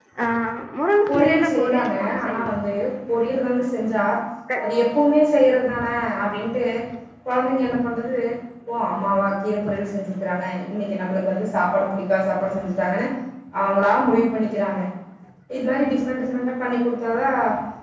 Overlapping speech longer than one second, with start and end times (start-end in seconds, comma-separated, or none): 1.1-2.5